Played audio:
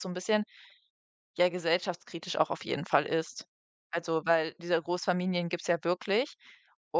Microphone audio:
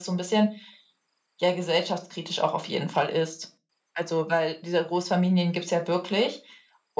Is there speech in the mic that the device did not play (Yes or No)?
No